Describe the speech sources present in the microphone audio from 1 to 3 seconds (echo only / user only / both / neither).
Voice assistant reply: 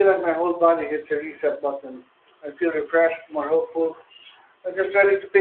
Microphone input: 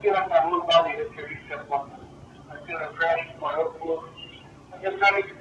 echo only